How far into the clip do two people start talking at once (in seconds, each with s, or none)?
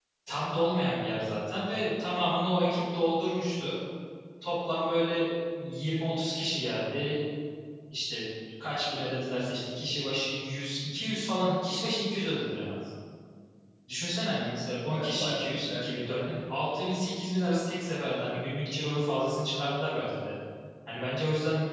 14.9 s